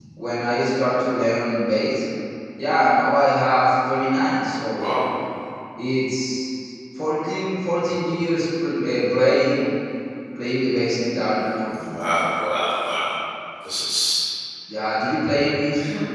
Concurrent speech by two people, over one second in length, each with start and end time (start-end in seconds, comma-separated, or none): none